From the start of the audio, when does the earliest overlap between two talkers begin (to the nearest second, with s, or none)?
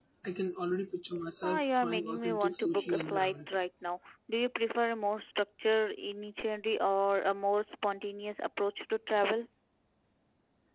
1 s